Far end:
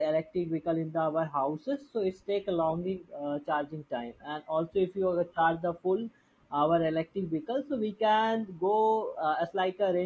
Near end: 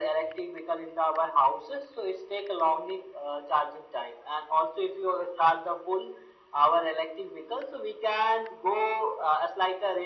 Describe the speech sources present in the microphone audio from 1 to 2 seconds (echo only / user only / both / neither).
echo only